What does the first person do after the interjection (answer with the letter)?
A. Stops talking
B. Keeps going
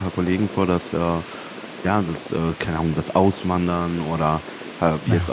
B